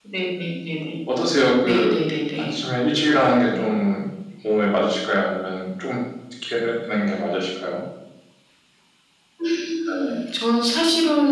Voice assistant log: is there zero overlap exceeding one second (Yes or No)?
Yes